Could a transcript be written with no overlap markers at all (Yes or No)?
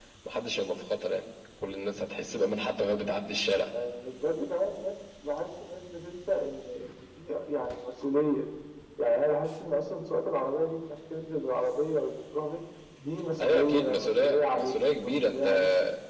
No